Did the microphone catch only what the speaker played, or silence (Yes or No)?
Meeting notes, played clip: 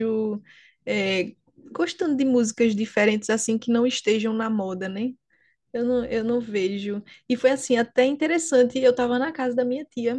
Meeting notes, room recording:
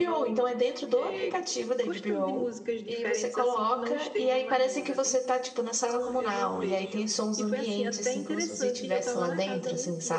No